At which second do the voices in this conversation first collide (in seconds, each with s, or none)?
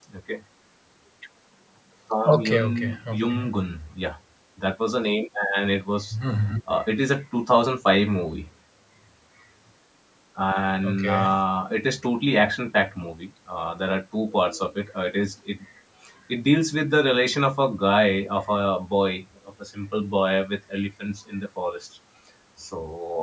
2.2 s